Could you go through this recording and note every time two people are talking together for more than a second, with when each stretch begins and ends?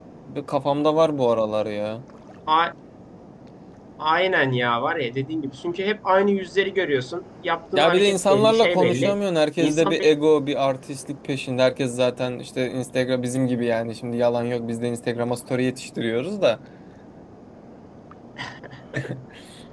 7.8-9.2

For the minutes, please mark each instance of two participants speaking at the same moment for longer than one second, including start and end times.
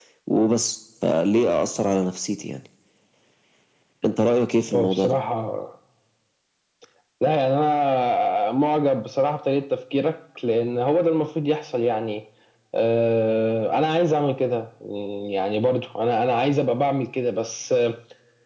none

